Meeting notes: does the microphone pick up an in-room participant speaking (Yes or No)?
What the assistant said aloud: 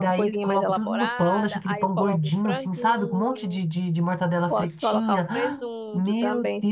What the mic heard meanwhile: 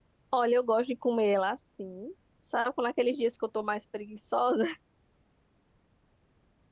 Yes